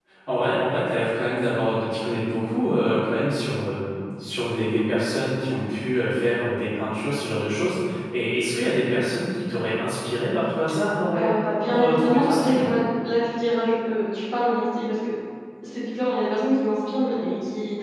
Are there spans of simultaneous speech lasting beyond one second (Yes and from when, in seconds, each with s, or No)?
Yes, from 11.1 s